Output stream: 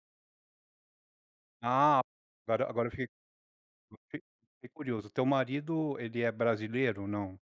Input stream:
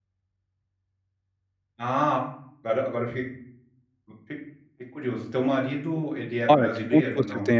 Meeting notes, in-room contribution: present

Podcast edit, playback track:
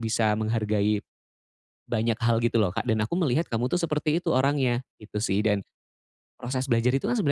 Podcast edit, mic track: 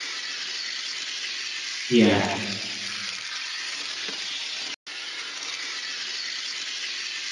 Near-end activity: present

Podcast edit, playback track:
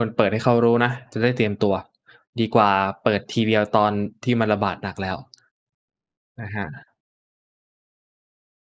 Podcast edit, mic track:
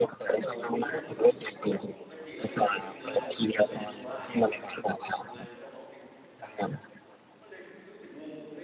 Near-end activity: present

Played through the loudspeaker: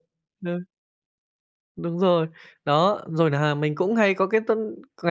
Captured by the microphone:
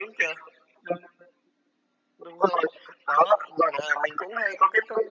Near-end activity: none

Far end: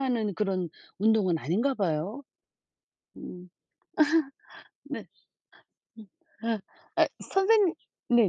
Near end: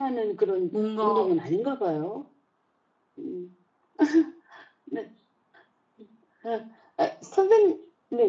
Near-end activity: present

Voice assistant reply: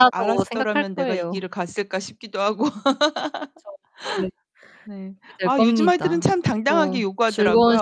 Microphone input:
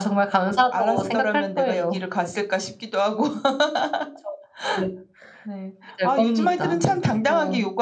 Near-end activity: none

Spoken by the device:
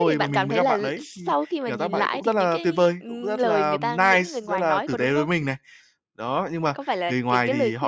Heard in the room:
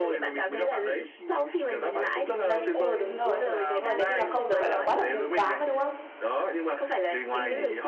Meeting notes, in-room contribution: present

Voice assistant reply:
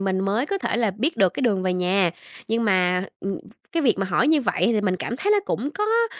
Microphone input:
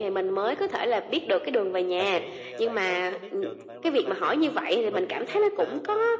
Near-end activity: present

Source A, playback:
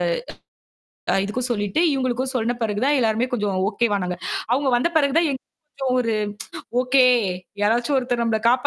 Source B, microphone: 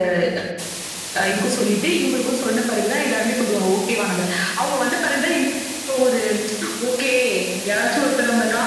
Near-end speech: none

